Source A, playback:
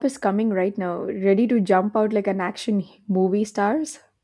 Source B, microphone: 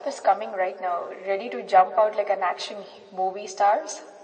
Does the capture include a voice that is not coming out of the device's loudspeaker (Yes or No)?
No